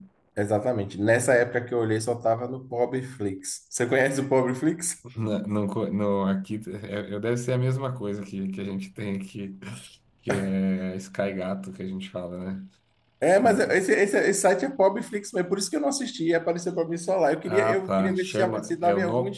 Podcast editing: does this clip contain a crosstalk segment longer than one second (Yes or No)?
Yes